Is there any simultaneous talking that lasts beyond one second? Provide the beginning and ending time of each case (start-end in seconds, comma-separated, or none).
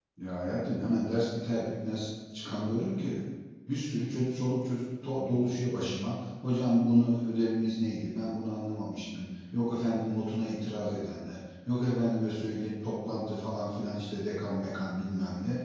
none